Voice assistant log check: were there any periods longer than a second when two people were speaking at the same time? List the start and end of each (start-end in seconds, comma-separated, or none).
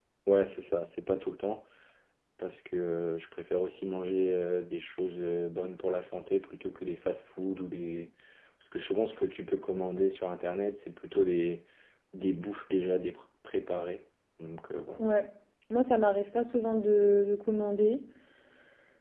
none